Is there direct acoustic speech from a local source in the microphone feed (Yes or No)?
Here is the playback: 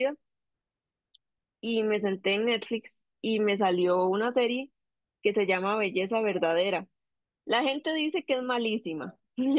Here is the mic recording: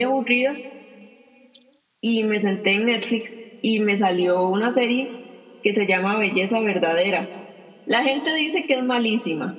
No